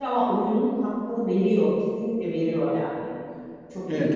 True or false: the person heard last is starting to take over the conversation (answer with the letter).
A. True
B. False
A